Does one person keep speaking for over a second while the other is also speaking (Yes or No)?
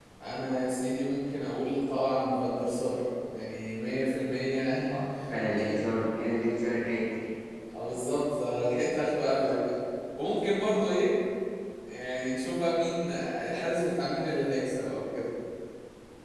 No